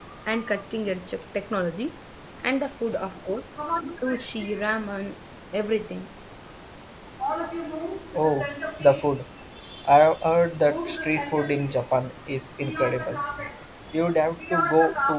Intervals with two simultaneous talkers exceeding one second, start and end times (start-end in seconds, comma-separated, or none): none